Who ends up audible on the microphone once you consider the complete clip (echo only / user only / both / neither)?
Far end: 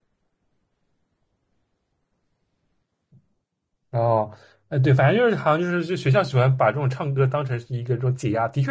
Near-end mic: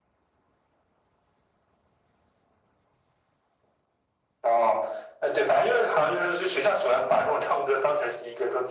echo only